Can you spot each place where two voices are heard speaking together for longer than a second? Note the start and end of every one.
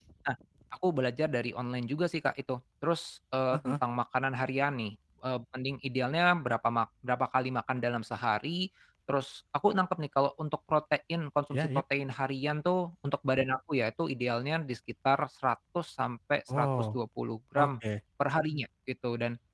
none

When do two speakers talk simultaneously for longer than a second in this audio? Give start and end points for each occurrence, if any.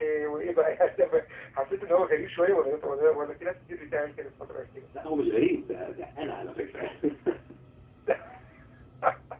none

